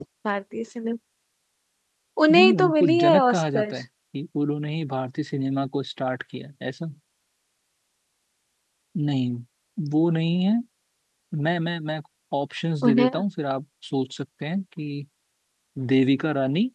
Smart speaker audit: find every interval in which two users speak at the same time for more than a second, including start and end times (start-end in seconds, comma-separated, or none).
2.3-3.6